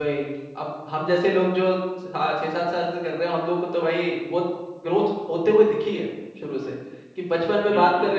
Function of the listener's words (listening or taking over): listening